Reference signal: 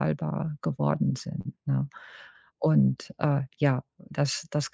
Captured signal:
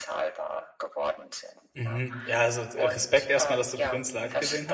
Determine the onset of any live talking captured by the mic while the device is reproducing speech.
1.8 s

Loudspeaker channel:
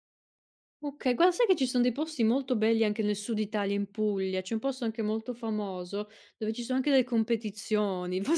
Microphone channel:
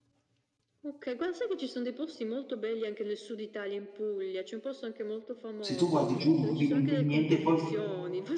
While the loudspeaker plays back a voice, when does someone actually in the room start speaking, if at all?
5.6 s

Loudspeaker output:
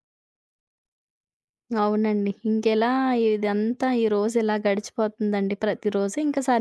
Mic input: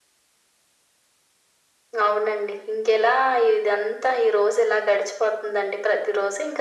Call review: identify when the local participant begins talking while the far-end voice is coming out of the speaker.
none

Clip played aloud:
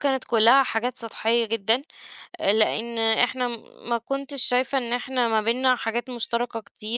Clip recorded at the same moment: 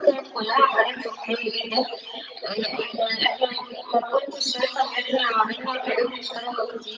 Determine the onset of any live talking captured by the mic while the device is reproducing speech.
none

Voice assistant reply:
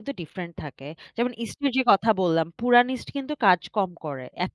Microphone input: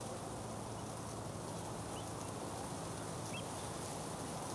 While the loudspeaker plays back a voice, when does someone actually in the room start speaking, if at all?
none

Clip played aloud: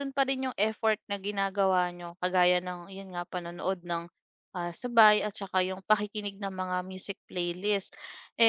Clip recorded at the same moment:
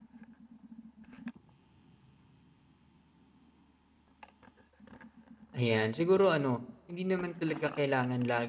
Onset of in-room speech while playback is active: 5.5 s

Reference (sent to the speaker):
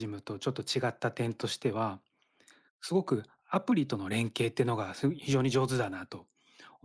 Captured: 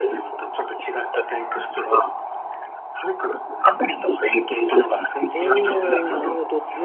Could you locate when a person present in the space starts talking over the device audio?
5.3 s

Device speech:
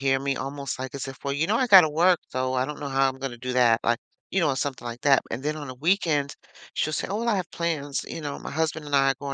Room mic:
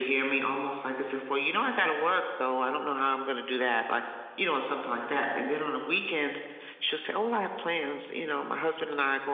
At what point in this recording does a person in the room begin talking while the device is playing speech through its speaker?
none

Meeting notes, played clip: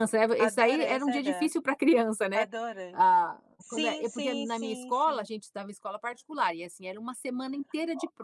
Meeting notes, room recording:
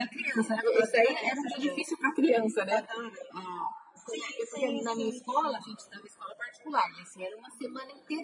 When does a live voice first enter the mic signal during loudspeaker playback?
none

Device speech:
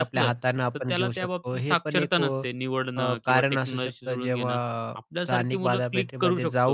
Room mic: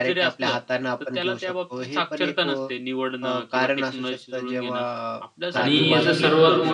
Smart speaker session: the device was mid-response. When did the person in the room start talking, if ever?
5.5 s

